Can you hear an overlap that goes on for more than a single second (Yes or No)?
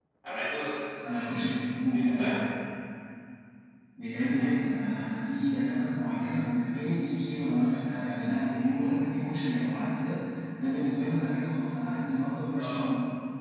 No